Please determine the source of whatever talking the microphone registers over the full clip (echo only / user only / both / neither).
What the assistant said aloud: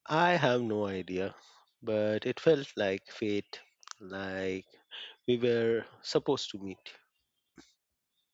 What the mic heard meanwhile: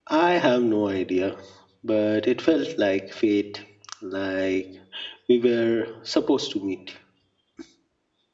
echo only